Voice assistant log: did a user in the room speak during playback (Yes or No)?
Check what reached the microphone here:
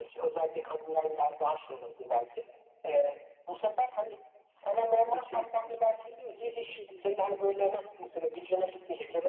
Yes